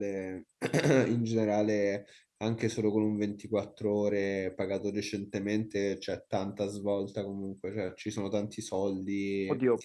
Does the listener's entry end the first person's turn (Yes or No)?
Yes